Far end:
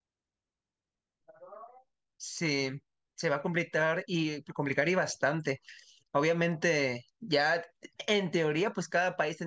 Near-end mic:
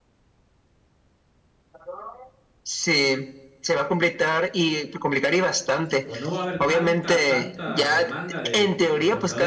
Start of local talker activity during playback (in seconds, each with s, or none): 6.0 s